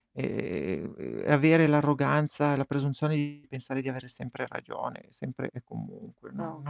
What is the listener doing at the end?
listening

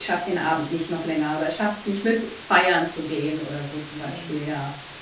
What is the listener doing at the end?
taking over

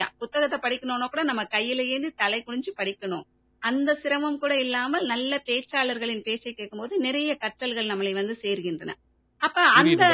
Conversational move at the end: taking over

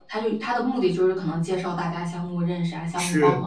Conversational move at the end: taking over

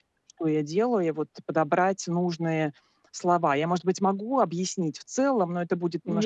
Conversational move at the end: taking over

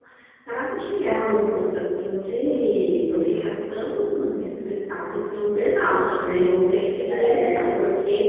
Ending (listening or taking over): listening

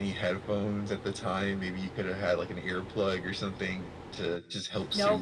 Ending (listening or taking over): taking over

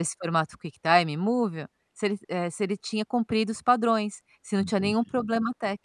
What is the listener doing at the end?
listening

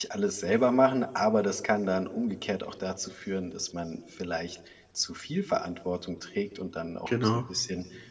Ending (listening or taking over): listening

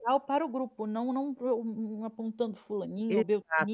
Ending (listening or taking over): taking over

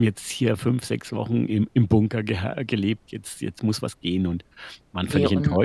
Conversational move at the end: taking over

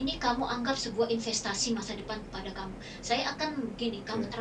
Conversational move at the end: listening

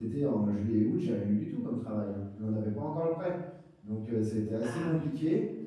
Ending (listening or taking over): listening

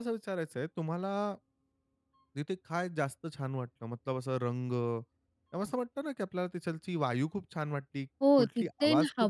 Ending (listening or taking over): taking over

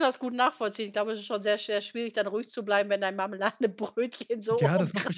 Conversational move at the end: taking over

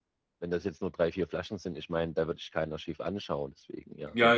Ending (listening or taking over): taking over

